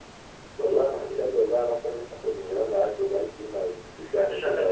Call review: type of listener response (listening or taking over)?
taking over